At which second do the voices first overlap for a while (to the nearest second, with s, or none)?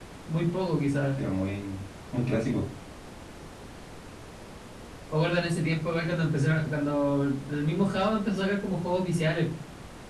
none